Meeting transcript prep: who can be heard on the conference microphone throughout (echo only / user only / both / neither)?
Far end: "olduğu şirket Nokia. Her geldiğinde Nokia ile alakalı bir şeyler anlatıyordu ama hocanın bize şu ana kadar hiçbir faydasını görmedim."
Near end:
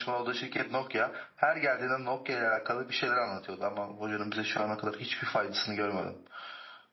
echo only